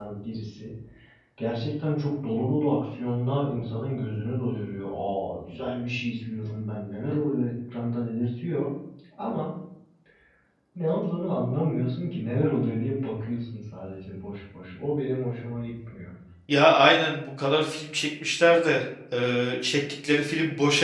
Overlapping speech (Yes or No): No